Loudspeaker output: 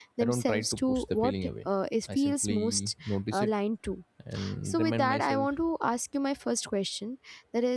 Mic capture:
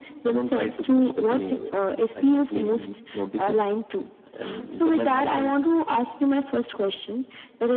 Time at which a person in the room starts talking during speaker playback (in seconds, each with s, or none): none